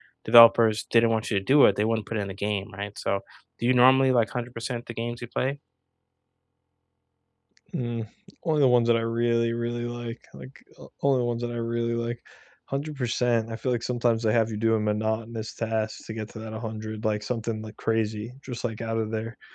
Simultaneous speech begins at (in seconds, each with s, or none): none